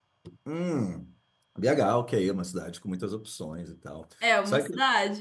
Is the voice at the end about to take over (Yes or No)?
Yes